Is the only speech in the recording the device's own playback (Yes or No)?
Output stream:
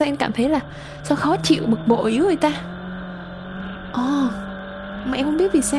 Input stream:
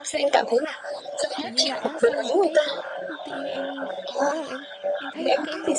No